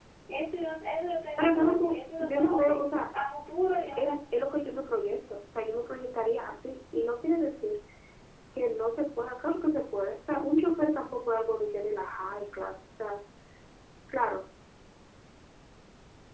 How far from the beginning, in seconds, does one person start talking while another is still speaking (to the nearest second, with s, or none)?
1 s